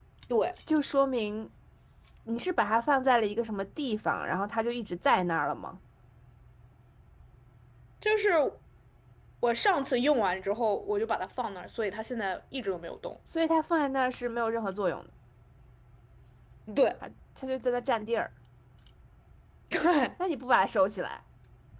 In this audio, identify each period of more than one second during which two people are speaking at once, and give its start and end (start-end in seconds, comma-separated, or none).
none